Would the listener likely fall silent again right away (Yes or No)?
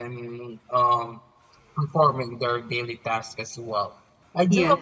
Yes